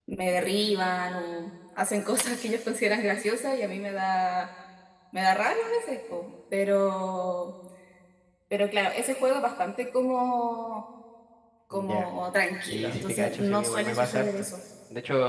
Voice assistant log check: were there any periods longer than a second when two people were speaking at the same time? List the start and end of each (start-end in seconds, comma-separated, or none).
12.6-14.4